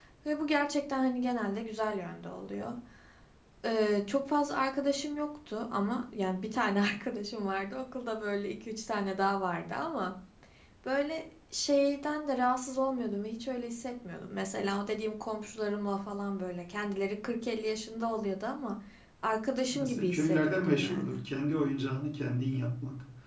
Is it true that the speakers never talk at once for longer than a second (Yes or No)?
No